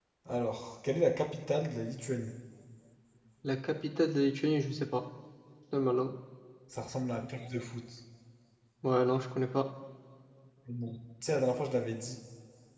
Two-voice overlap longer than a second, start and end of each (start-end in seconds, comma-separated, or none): none